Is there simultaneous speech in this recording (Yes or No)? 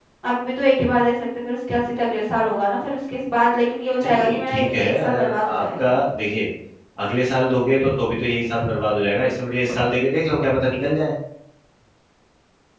Yes